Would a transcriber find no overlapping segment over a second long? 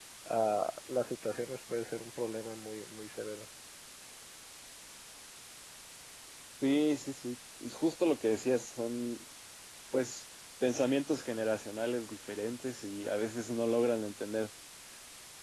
Yes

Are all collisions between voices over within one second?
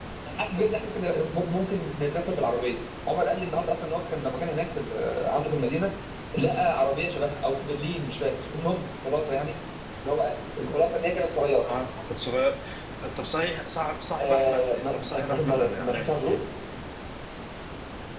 No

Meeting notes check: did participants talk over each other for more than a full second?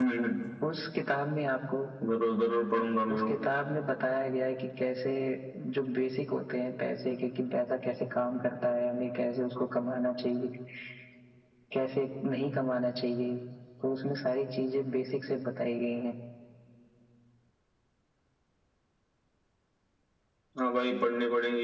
No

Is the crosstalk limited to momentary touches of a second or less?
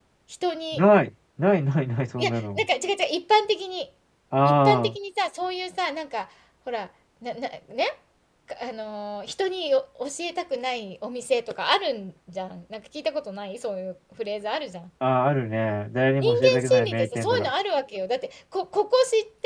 No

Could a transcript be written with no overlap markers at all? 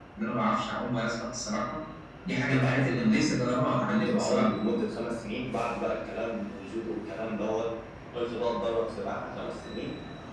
No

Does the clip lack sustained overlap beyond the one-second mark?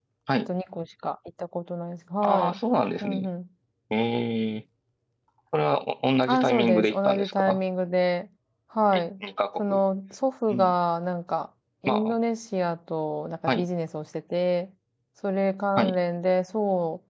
No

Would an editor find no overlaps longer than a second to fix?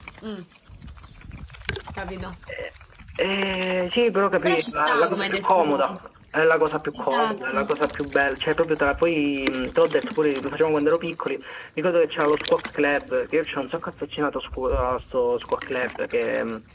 No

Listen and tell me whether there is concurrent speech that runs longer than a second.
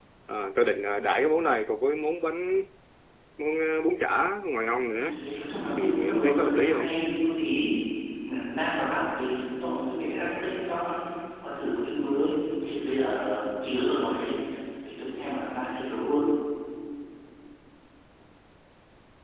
Yes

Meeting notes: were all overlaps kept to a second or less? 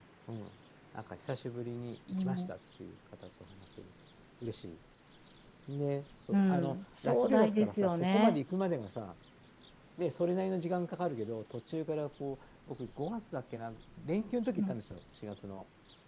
No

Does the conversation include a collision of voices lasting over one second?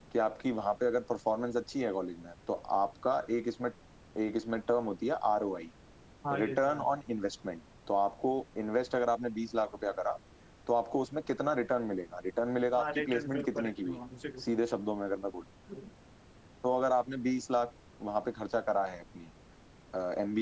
Yes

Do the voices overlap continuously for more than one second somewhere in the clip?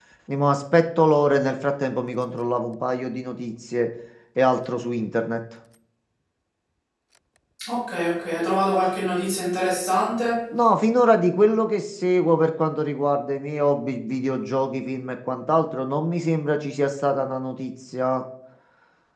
No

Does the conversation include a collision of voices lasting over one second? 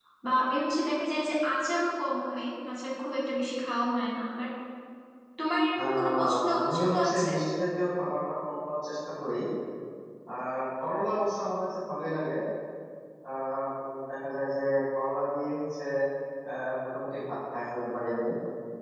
Yes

